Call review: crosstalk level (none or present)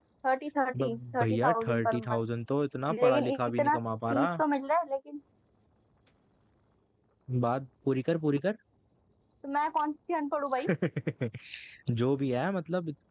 present